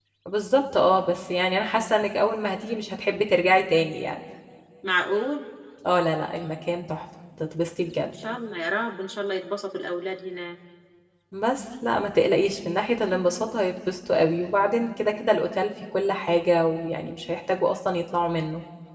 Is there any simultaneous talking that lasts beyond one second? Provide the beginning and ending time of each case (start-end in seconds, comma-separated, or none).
none